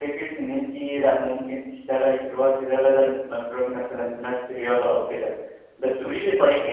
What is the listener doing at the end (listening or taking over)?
listening